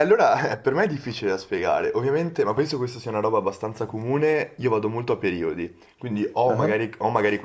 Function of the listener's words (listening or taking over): listening